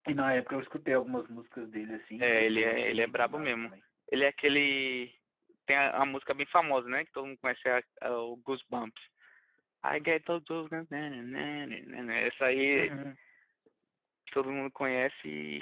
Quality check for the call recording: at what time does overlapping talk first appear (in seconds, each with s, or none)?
2.2 s